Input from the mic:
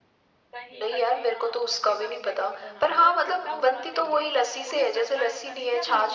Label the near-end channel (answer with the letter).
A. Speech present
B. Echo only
A